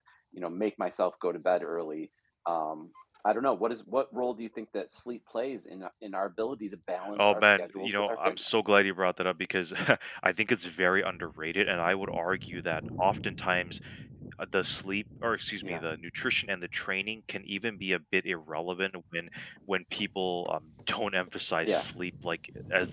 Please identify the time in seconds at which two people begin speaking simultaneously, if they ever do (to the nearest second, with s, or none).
7 s